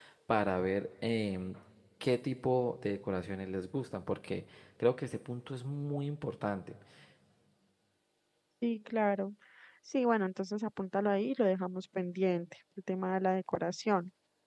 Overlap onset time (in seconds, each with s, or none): none